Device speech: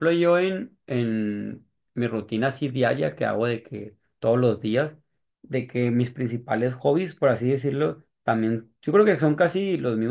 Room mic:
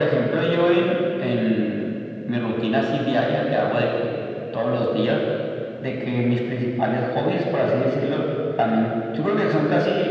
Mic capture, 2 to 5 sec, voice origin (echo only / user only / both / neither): echo only